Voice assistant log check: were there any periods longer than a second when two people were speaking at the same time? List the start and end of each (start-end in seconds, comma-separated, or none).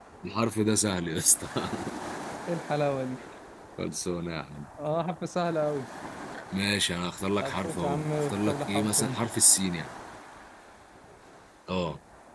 7.4-9.2